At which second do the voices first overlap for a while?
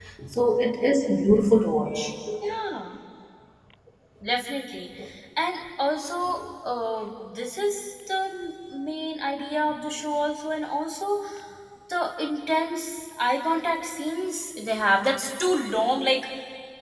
none

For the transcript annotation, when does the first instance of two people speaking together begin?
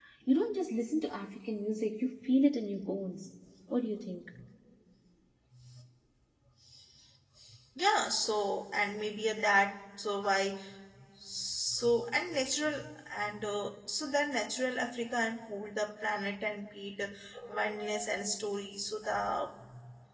none

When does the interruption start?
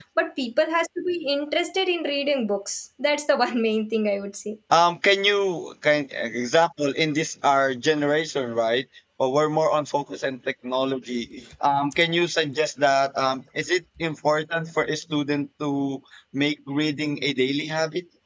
none

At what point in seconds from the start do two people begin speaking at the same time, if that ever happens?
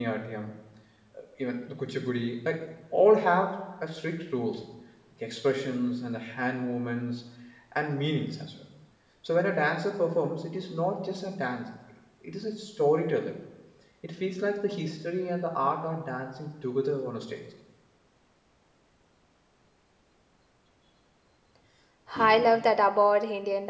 none

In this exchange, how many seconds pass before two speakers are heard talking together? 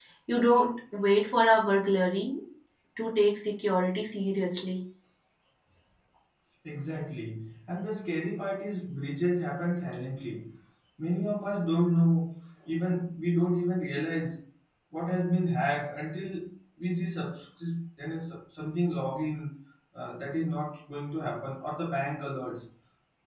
none

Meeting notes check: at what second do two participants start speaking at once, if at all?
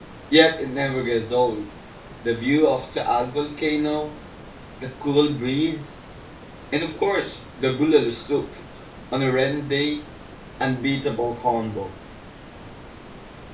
none

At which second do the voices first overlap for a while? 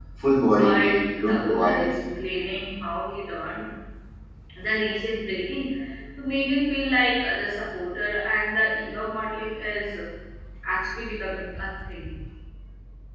0.5 s

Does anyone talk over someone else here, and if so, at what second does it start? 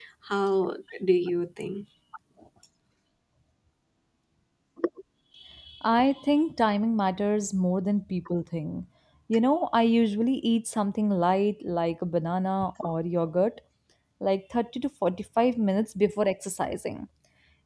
none

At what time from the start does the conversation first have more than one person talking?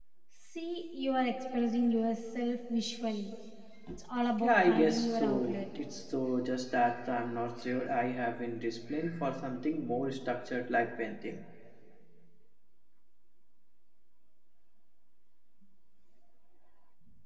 4.4 s

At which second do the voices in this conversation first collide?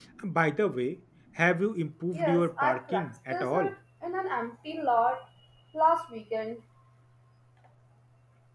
2.1 s

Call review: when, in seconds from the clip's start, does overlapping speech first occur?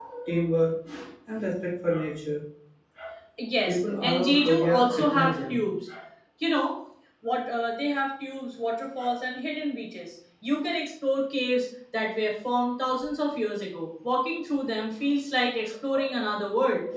3.7 s

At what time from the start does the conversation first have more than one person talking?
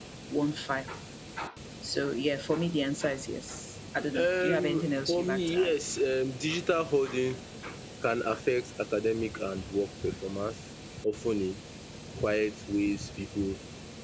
4.1 s

